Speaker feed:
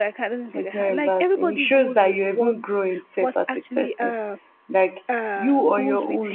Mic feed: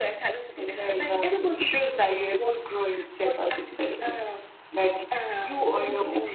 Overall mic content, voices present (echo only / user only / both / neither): echo only